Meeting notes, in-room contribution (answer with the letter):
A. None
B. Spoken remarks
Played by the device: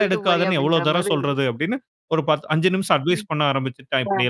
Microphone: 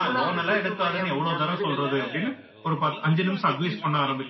B